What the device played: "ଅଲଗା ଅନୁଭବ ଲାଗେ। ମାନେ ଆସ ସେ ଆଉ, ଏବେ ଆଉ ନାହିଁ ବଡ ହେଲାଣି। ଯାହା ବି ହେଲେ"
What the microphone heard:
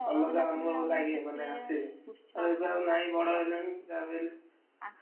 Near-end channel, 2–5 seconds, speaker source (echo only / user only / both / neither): both